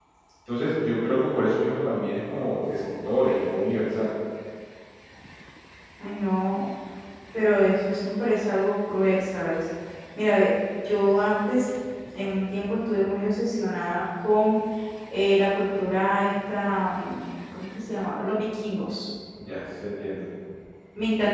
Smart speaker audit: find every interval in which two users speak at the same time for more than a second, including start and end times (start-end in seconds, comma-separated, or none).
none